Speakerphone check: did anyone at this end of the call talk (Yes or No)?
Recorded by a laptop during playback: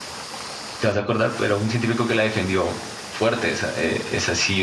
Yes